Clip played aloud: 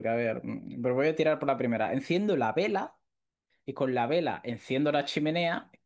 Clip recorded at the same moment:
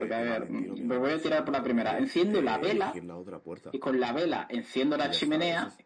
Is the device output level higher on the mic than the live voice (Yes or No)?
Yes